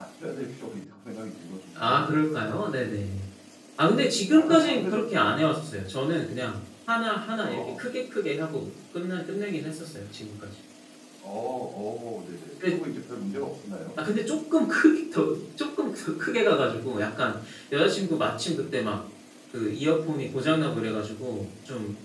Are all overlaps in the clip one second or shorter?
No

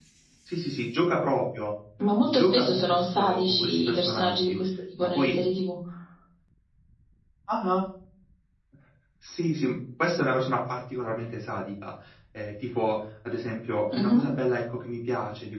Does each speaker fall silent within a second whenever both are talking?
No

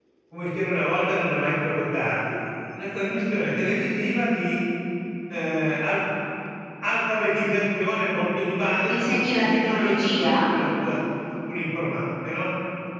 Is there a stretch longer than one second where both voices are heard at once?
Yes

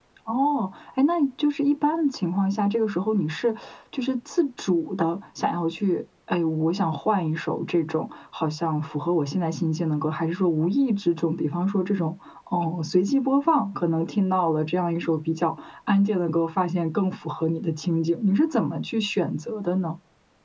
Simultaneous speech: No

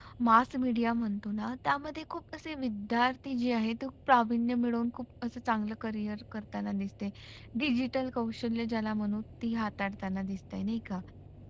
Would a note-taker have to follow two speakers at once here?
No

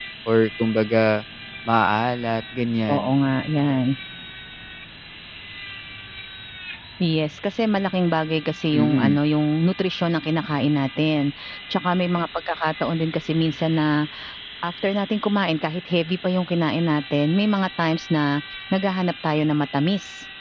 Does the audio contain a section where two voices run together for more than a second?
No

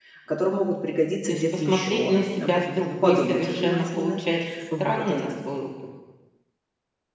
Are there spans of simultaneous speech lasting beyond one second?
Yes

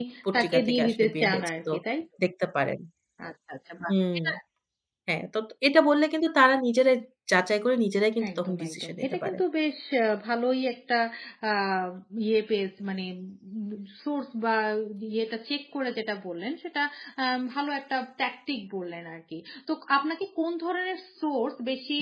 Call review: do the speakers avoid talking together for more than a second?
No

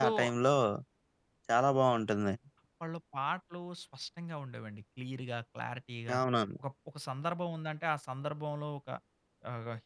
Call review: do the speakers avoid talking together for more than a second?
Yes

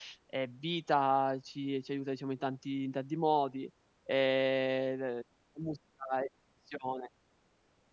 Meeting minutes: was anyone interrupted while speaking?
No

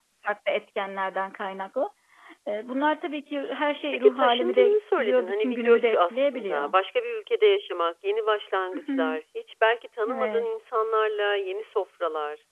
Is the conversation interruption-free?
No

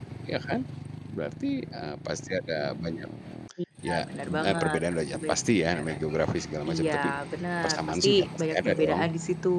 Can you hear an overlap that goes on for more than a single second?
Yes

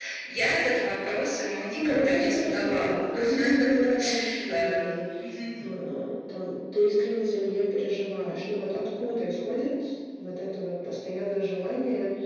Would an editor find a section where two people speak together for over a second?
Yes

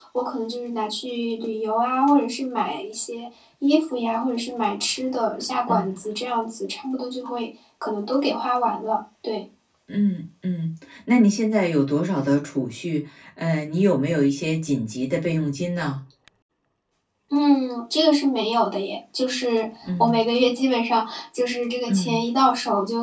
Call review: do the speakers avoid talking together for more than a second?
Yes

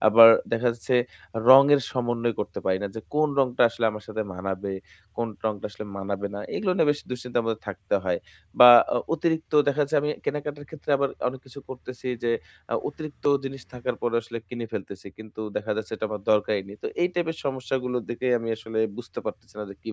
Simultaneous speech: No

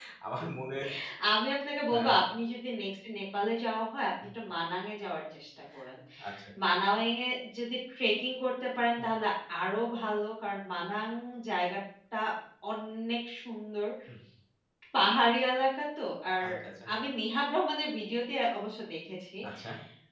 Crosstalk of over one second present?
No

